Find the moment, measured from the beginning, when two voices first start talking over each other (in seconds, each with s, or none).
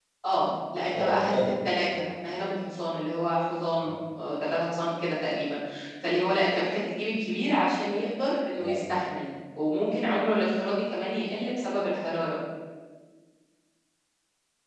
0.9 s